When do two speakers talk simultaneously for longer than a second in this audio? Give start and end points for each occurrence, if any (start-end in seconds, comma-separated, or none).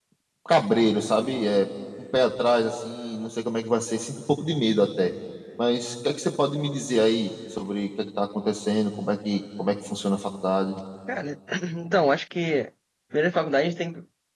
none